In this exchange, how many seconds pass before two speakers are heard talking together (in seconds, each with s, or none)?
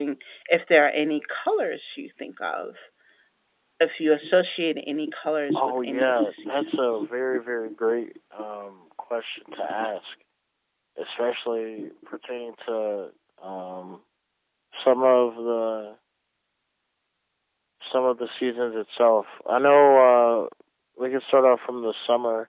5.5 s